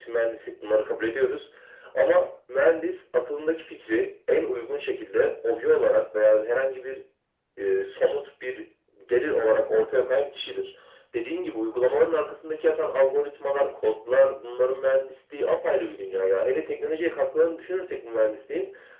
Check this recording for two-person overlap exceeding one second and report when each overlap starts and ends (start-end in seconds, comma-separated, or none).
none